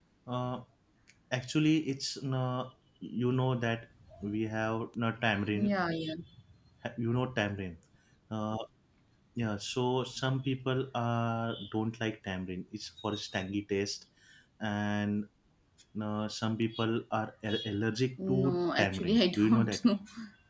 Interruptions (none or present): present